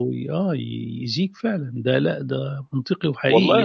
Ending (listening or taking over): taking over